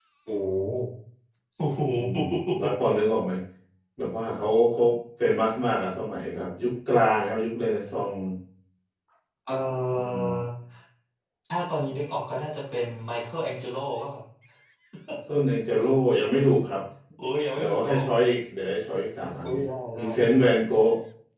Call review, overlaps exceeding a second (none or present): none